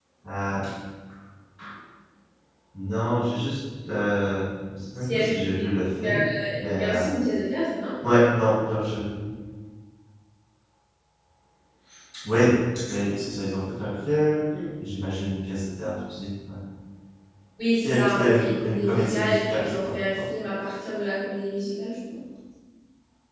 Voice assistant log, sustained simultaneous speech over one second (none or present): present